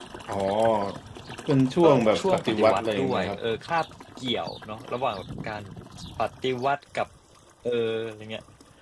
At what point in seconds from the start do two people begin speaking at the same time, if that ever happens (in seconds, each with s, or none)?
1.8 s